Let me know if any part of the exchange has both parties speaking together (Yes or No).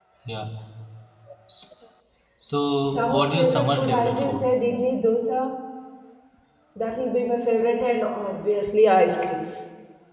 Yes